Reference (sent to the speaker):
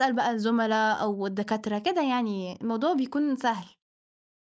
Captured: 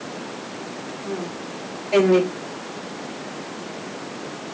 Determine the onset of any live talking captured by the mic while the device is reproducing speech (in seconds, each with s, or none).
1.1 s